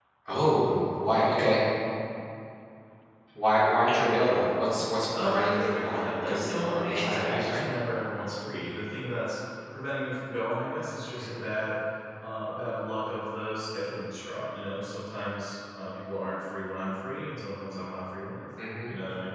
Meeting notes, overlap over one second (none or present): present